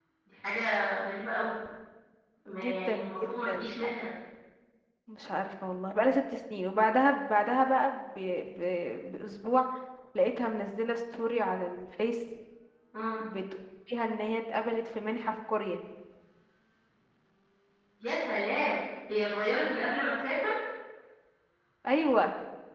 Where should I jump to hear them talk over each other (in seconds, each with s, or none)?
2.5 s